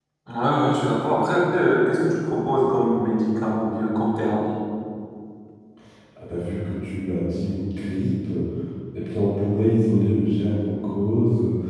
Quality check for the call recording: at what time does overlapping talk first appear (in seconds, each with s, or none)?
none